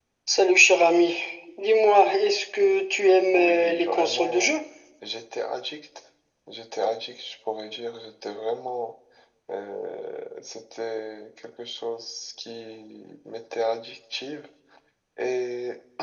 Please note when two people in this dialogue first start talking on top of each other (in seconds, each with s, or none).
3.3 s